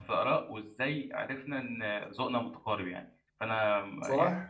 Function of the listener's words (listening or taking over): taking over